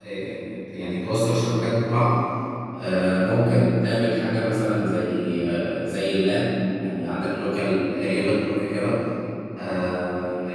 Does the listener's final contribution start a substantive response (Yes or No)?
No